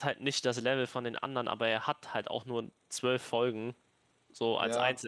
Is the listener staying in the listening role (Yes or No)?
No